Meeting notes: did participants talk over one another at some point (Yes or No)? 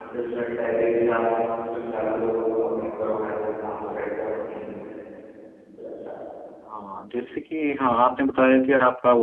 No